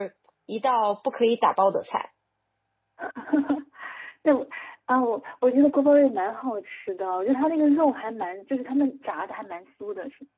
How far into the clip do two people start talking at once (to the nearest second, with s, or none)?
none